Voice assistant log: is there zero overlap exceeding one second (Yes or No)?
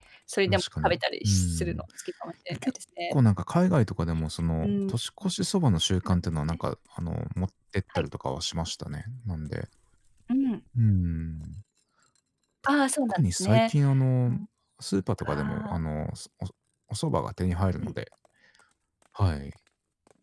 No